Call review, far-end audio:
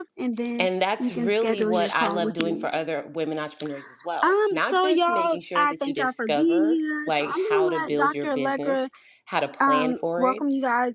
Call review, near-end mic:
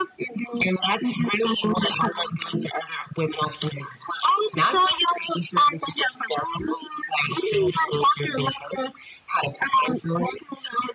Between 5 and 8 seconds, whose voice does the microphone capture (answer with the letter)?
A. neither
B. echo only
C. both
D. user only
B